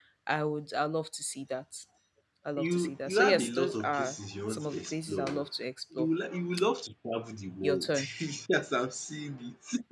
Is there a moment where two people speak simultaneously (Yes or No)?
Yes